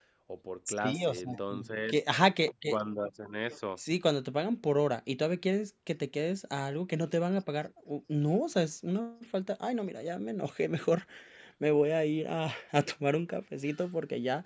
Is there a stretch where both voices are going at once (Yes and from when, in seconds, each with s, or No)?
Yes, from 0.7 s